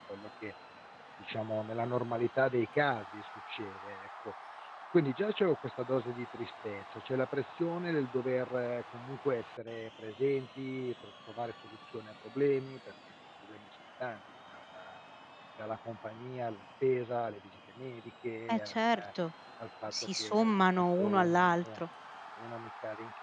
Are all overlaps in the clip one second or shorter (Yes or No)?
No